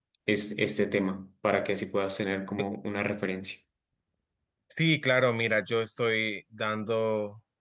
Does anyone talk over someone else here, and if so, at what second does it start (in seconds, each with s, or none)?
none